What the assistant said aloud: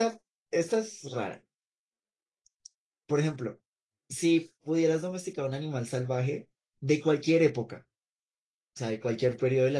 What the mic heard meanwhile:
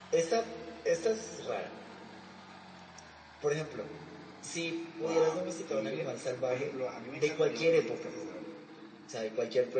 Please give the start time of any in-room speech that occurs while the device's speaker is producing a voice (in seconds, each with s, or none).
5.0 s